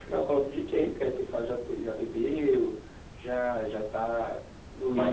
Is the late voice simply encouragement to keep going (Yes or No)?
No